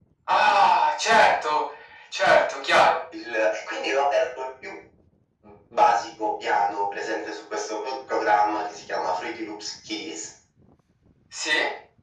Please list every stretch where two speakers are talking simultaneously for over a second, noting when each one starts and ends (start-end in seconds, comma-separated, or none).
none